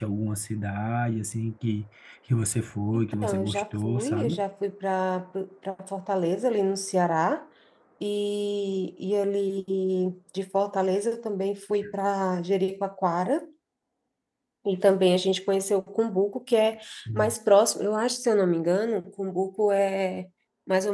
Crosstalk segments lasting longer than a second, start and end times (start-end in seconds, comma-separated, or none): 3.2-4.4